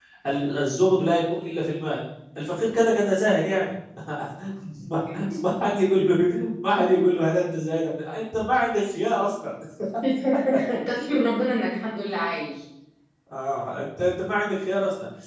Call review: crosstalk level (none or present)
none